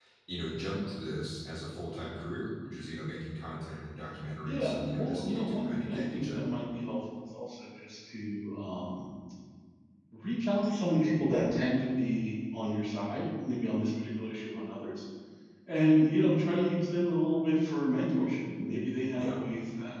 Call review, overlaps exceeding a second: present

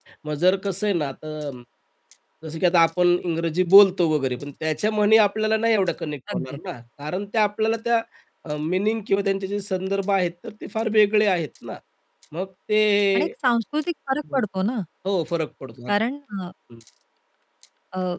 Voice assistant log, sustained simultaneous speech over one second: none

